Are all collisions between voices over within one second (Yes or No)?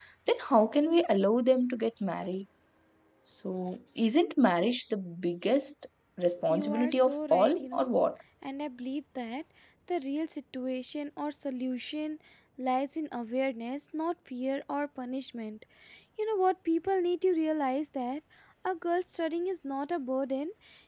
No